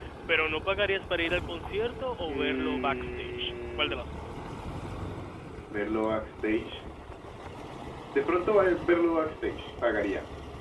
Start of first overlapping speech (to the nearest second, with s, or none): 2 s